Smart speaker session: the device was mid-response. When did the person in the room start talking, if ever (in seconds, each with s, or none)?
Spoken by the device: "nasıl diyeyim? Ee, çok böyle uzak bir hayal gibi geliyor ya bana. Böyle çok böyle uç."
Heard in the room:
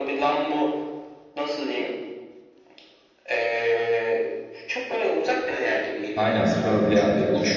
6.2 s